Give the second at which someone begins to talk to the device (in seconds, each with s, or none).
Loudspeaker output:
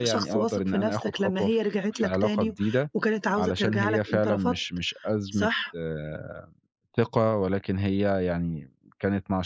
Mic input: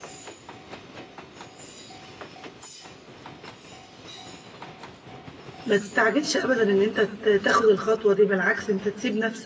5.6 s